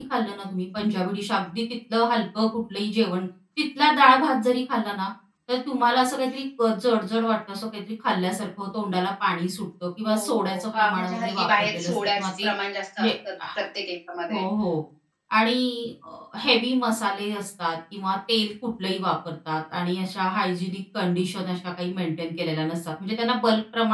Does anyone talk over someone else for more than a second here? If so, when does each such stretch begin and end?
10.1-12.5

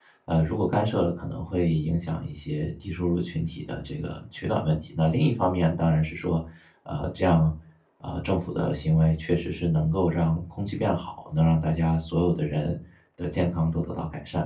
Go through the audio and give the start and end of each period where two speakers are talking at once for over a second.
none

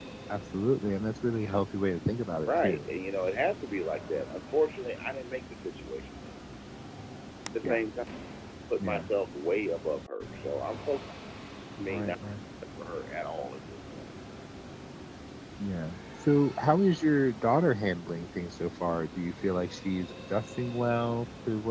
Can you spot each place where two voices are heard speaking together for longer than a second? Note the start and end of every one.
none

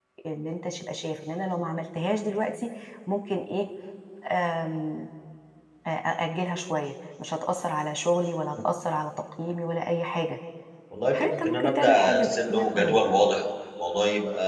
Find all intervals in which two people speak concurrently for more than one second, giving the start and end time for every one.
11.1-13.0

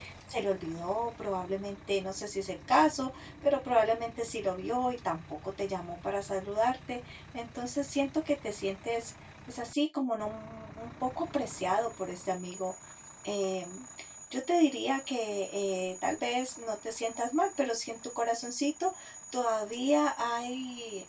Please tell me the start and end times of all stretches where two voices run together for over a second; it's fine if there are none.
none

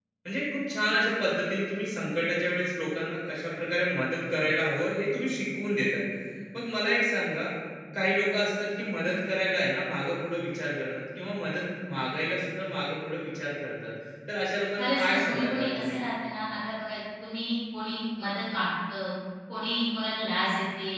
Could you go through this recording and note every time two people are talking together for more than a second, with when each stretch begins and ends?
14.8-16.0

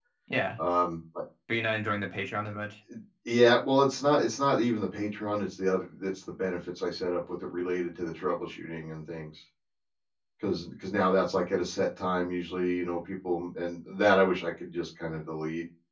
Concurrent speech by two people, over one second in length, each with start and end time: none

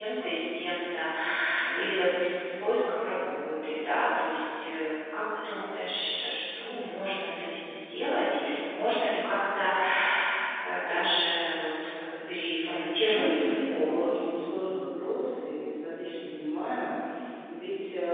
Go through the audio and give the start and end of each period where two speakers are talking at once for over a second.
13.0-14.3

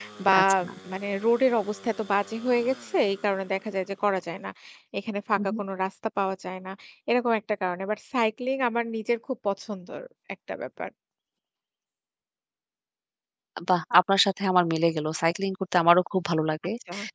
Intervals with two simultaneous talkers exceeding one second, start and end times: none

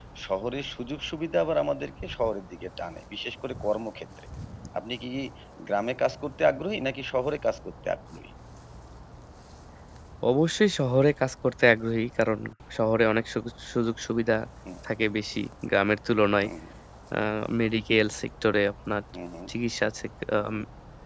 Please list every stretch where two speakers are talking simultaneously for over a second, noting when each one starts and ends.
none

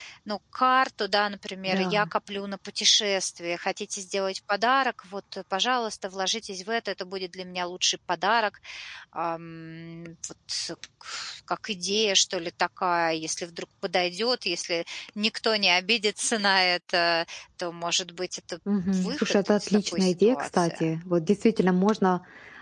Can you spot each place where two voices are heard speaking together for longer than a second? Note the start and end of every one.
18.9-20.8

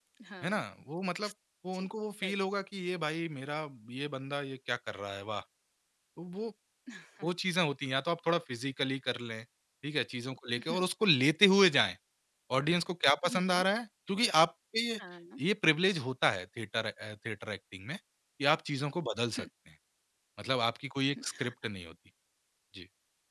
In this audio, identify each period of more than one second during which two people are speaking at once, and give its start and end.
none

